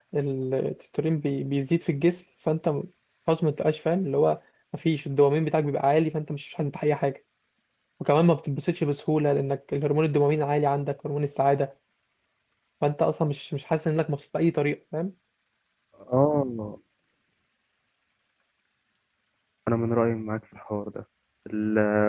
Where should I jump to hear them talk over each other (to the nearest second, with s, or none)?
none